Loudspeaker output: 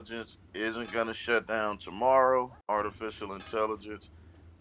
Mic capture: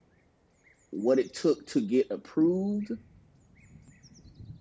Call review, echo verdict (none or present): none